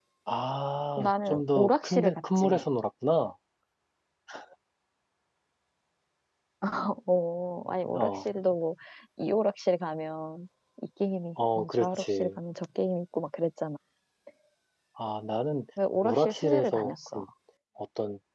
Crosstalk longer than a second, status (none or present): present